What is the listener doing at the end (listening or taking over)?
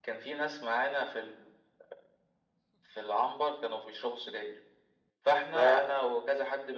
listening